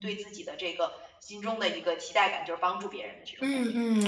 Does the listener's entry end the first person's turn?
Yes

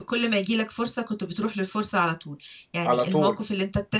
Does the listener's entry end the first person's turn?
No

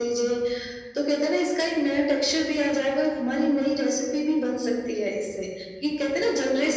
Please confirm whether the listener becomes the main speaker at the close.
Yes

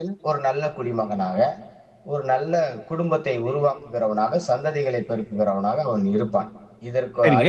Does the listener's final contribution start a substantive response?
Yes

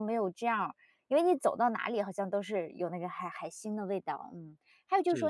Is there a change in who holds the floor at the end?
No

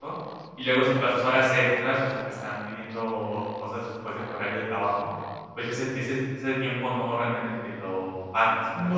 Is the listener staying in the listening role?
No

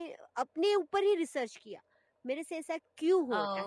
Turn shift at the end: Yes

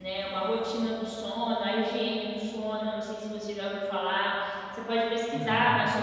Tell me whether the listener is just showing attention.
Yes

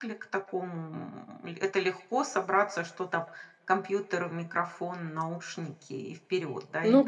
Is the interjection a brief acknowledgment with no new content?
No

